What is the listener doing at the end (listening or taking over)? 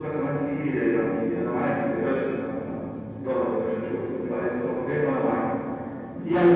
listening